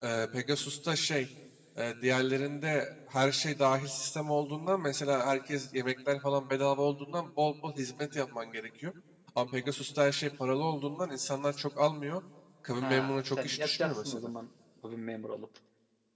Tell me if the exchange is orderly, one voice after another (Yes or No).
No